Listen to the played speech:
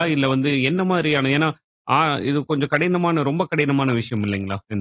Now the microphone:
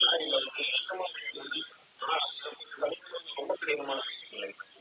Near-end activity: none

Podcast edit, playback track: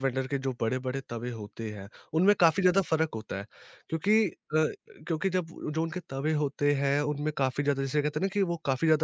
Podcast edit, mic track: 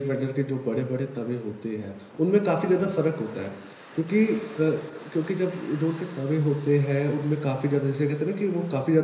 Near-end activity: none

